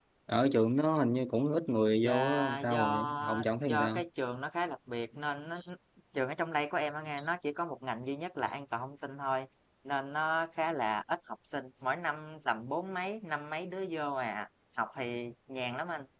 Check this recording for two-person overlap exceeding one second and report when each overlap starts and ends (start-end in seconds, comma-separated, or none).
2.0-4.0